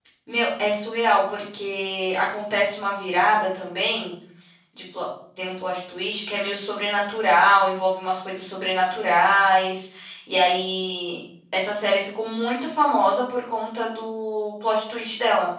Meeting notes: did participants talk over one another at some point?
No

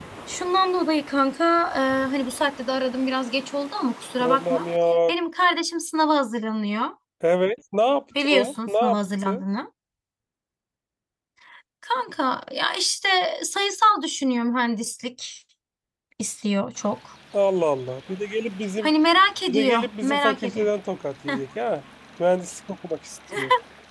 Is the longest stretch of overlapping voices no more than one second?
No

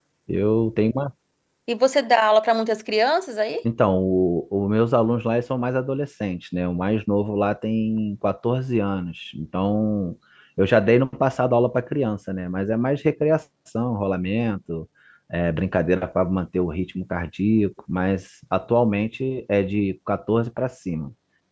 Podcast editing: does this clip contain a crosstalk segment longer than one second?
No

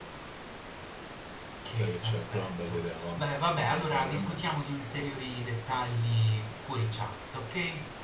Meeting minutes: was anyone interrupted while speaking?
Yes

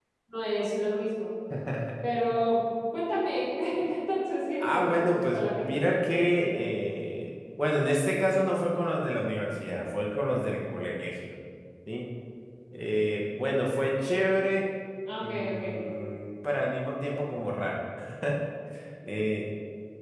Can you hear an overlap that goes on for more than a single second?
Yes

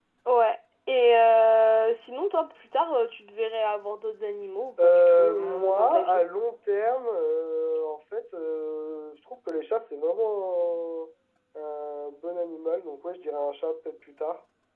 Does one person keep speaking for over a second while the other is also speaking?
Yes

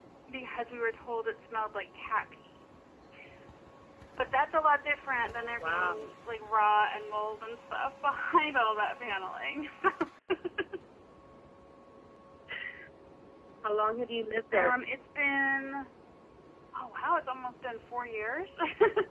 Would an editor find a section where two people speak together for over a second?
No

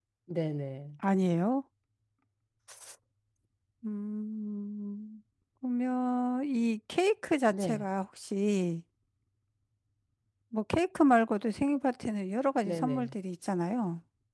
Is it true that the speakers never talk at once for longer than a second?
Yes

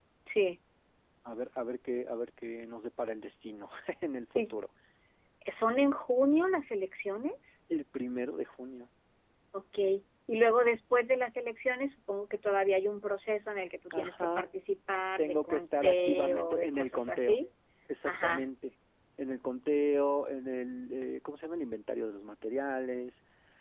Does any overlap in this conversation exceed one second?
Yes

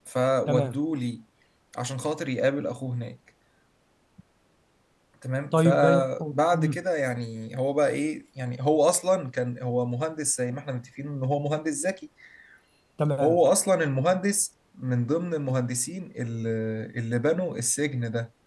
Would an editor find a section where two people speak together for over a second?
Yes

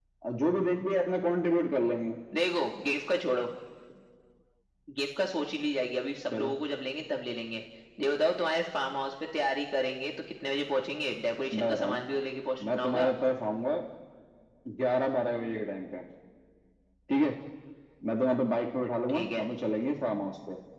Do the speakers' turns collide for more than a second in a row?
No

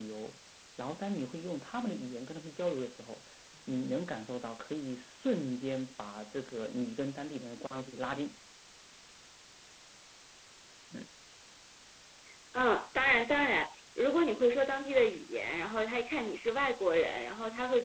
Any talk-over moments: No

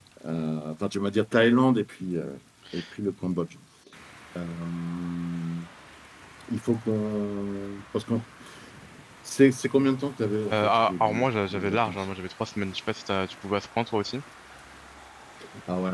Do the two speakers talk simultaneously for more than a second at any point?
Yes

